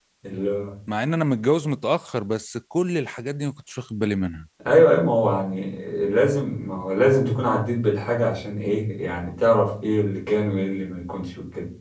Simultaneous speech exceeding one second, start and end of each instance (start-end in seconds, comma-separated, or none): none